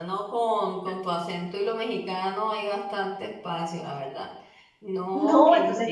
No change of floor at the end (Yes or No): No